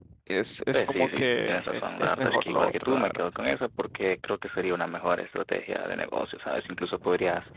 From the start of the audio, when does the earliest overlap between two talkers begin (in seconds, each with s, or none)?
0.7 s